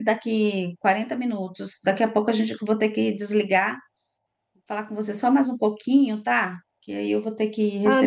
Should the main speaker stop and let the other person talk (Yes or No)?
Yes